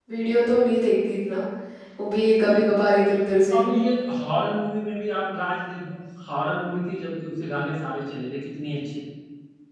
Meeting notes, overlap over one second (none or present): none